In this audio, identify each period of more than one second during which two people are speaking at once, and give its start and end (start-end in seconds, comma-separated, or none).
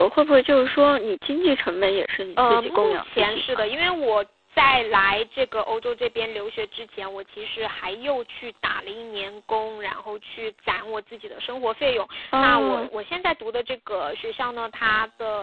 2.4-3.6